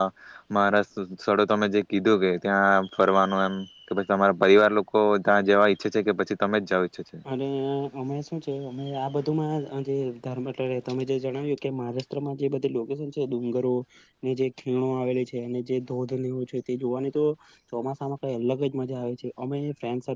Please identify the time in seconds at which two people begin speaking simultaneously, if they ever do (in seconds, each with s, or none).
none